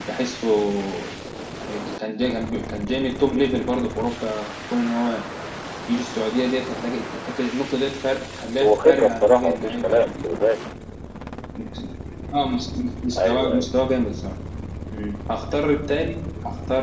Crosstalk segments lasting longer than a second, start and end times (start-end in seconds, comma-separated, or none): 8.6-10.1